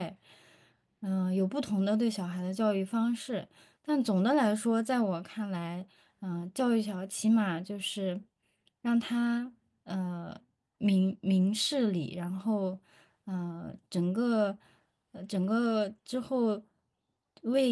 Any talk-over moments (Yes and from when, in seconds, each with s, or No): No